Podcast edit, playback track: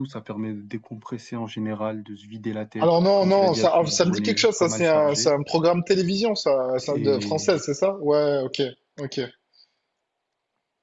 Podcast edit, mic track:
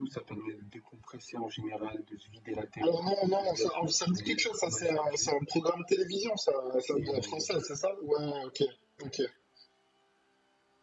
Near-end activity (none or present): none